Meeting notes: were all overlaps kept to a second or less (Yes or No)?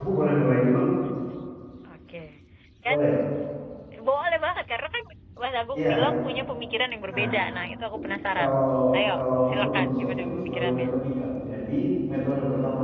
No